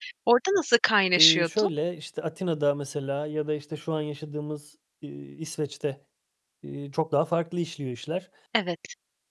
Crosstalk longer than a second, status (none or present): none